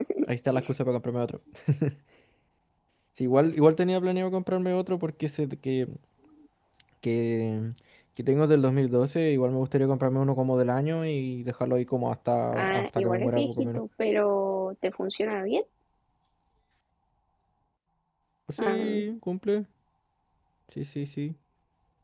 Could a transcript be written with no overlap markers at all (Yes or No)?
No